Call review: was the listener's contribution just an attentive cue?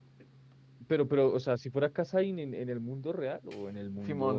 No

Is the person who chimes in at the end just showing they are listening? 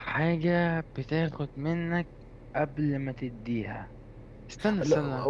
No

